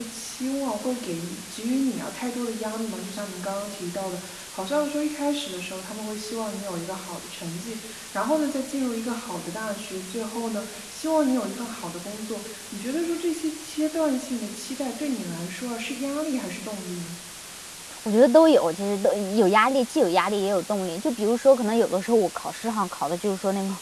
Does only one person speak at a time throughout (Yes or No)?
Yes